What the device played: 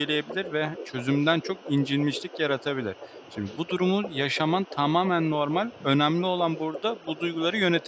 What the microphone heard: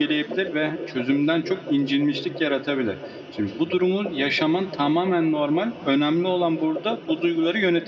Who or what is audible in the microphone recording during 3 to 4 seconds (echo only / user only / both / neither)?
echo only